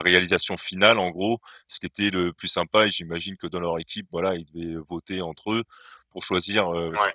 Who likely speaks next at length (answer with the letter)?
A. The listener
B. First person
B